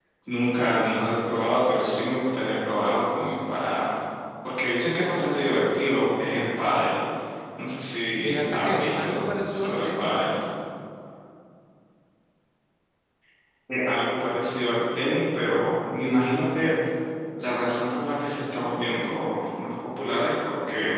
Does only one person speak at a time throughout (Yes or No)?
No